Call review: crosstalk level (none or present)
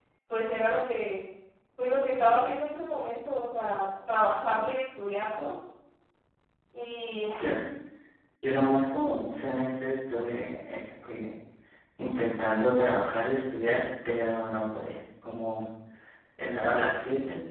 none